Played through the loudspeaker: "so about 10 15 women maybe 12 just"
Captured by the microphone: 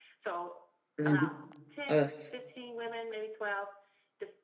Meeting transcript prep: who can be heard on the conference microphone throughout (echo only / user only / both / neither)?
both